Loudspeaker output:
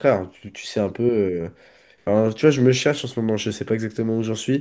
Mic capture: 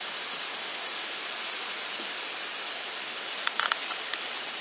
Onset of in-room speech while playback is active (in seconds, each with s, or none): none